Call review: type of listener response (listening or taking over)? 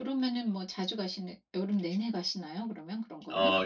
taking over